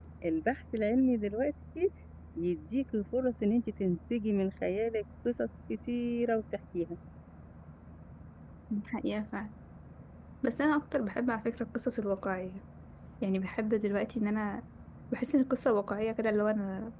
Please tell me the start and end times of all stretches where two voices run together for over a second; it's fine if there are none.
none

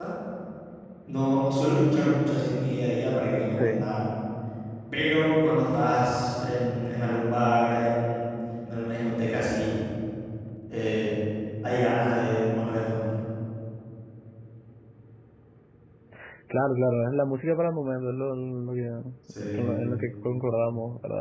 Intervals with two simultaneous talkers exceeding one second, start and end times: none

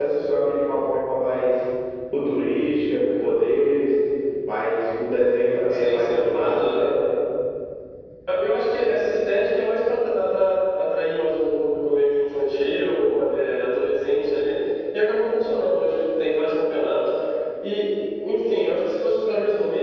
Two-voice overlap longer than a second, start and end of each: 5.7-6.9

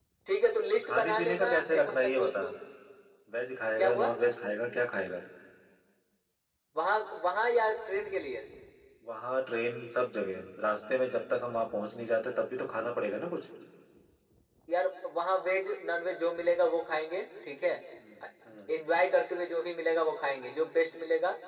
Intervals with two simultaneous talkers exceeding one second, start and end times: 0.7-2.4

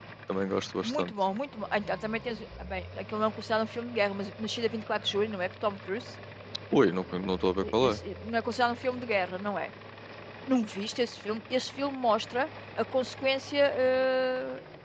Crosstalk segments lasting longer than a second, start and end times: none

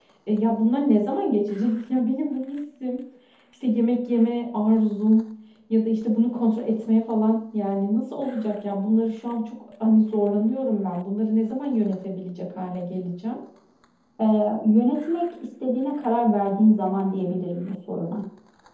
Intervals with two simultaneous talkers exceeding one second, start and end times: none

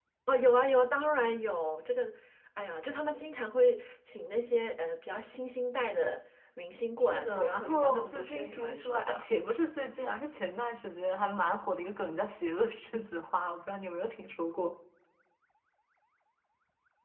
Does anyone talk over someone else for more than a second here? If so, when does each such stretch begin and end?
7.0-9.2

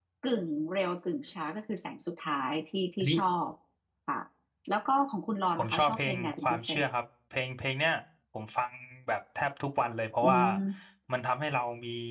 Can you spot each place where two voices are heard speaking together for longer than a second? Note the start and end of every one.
5.6-6.8

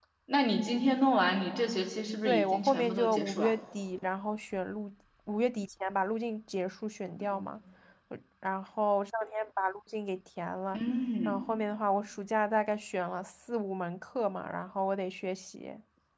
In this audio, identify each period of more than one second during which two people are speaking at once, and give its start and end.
2.2-3.5

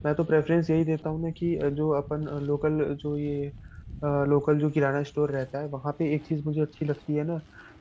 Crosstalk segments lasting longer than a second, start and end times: none

